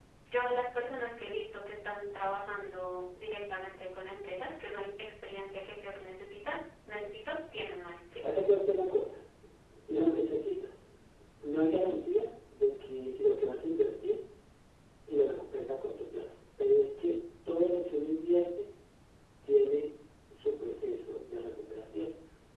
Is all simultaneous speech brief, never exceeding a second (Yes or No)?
Yes